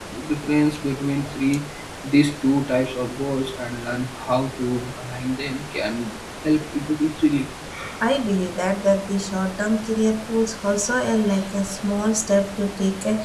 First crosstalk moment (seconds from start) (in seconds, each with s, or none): none